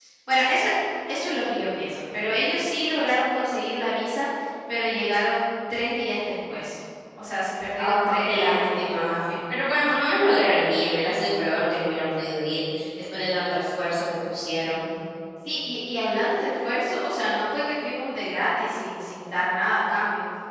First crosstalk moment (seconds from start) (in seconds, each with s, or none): 7.8 s